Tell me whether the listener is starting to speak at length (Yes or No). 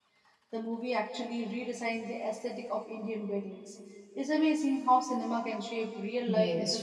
Yes